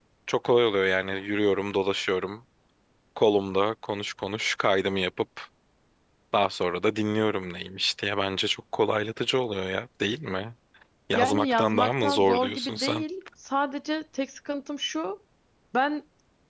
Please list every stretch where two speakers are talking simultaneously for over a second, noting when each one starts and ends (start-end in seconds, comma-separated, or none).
11.2-13.0